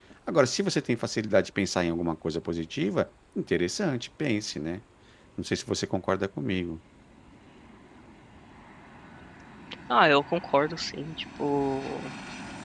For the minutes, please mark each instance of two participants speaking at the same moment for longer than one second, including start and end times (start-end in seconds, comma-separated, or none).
none